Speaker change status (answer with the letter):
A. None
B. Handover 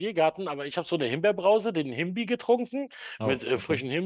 A